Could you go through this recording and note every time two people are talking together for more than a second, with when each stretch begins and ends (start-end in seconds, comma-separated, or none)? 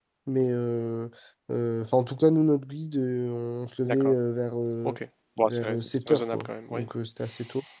5.4-6.8